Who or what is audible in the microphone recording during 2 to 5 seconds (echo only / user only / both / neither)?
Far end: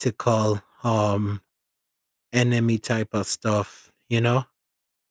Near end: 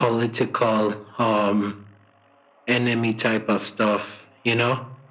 echo only